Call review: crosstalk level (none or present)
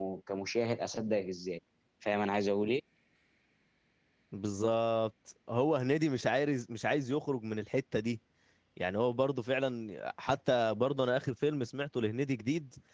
none